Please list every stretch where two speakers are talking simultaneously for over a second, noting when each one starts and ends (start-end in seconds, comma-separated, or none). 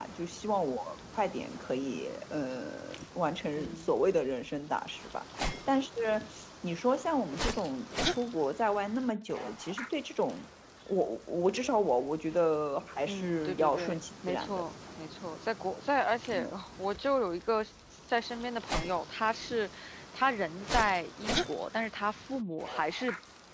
13.1-14.7